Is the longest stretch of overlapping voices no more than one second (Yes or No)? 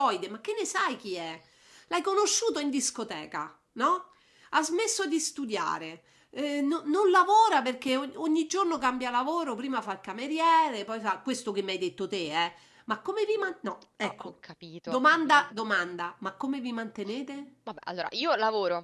Yes